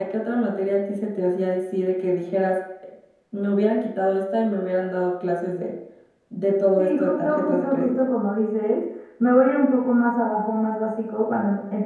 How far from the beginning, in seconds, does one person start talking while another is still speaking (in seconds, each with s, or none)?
6.8 s